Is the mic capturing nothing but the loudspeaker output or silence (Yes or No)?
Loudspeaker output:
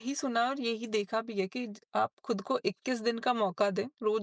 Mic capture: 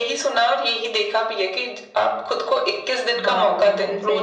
No